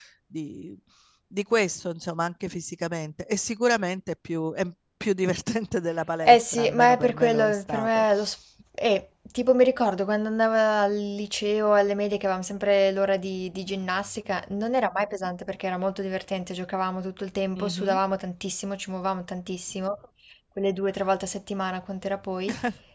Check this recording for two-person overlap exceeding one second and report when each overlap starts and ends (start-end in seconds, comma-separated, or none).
6.2-8.0